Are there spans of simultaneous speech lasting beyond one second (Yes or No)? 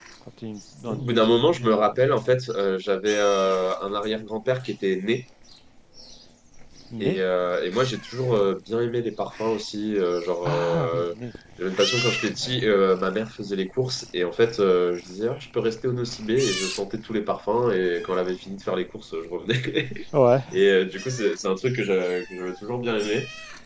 Yes